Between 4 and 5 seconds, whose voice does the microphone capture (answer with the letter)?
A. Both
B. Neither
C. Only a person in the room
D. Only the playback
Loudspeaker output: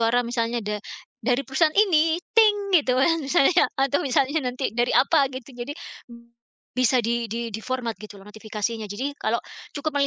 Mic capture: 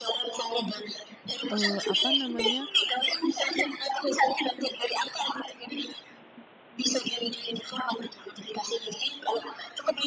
D